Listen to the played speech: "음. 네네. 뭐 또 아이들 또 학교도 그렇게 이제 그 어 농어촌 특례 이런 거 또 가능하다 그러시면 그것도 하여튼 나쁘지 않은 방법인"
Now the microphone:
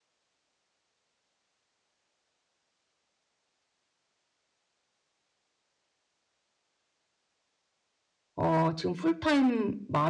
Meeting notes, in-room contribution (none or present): present